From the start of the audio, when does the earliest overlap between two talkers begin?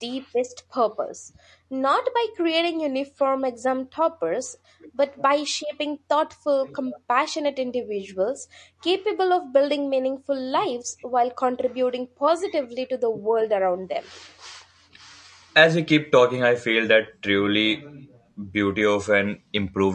none

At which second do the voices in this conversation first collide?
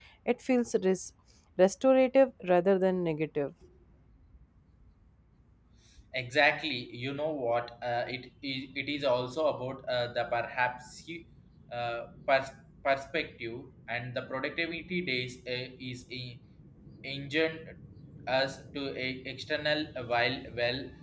none

